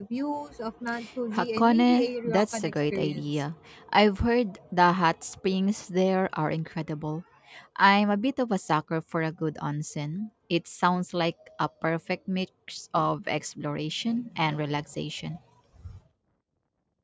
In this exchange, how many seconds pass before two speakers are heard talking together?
1.3 s

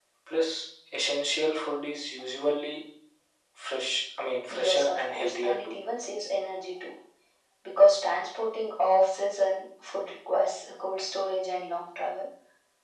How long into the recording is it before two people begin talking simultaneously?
4.5 s

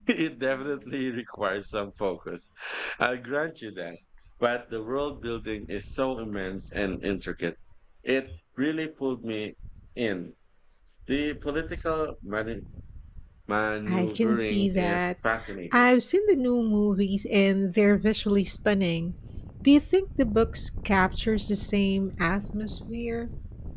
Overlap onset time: 13.9 s

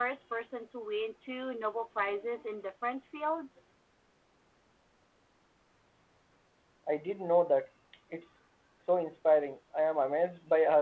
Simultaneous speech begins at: none

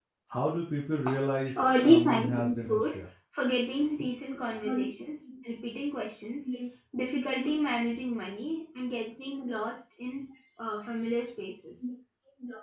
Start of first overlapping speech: 1.5 s

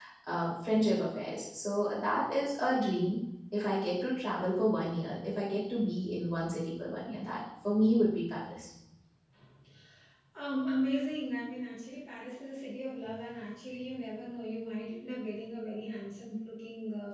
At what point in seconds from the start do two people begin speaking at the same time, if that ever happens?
none

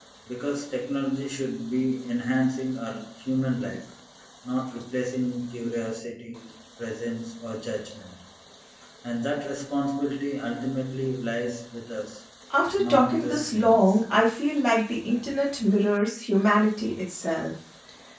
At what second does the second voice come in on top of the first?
12.8 s

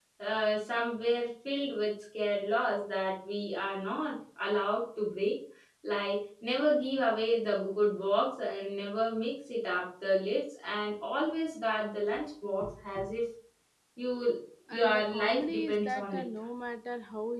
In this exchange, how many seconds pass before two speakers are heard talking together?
14.7 s

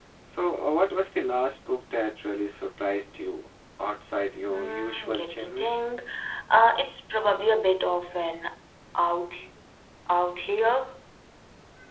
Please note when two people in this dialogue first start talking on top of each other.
4.5 s

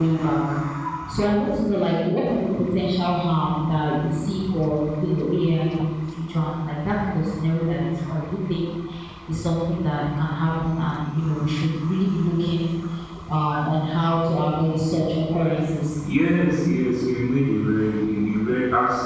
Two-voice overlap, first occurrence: none

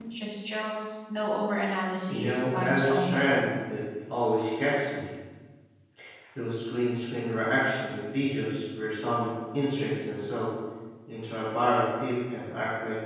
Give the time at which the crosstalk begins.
2.1 s

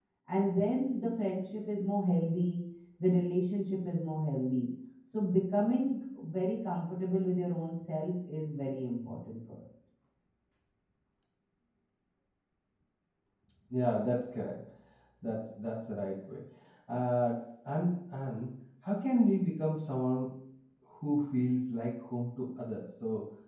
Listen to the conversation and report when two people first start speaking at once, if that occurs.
none

